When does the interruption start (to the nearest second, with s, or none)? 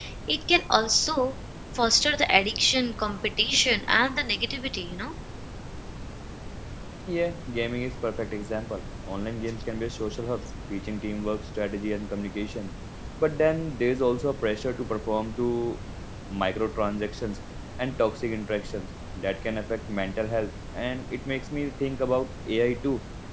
none